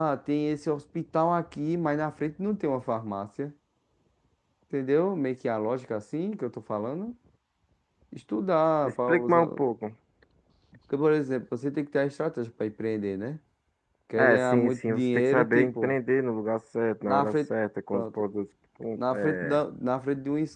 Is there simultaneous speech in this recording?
Yes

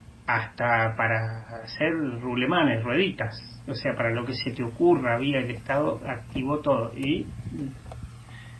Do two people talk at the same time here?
No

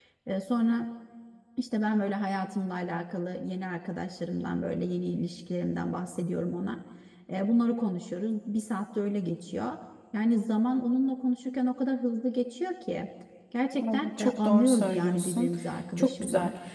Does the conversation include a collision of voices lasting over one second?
Yes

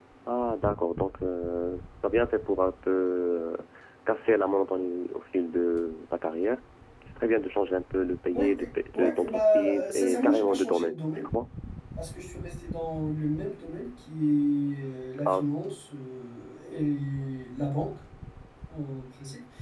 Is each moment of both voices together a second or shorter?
No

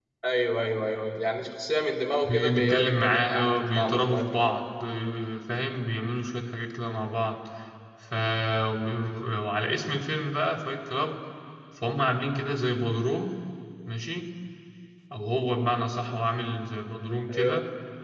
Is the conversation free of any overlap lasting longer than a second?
No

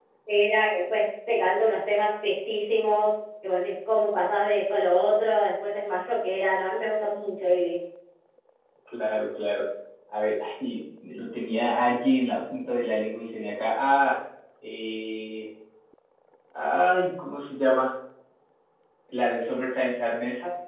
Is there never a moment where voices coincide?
Yes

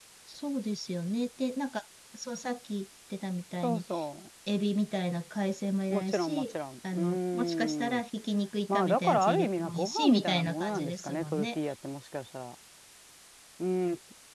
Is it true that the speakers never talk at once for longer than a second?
No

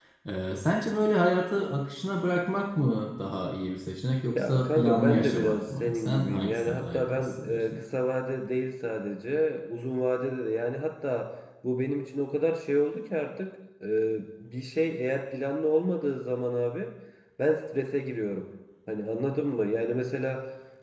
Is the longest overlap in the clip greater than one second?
Yes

